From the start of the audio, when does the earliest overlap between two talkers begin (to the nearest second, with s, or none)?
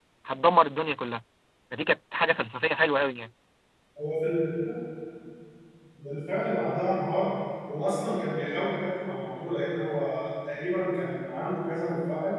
none